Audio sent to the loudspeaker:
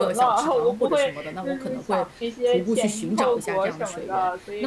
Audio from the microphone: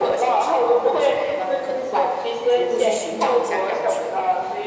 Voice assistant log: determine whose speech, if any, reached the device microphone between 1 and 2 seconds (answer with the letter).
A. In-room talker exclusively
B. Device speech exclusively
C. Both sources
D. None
B